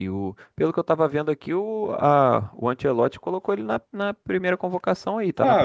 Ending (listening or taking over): taking over